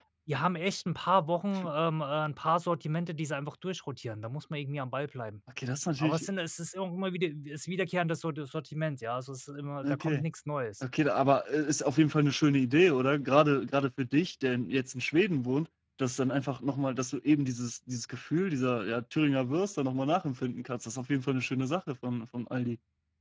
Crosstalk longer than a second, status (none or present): none